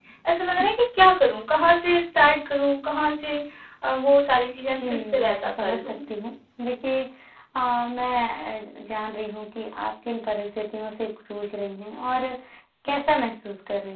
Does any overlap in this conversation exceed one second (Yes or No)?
Yes